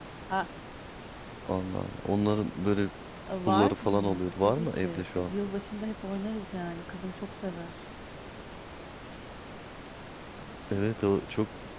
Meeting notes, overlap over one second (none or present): present